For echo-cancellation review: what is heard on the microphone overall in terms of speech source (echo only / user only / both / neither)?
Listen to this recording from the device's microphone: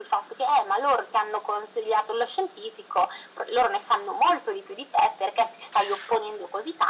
echo only